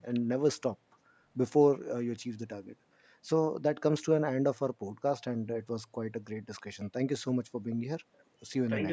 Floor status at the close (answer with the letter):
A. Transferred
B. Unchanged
A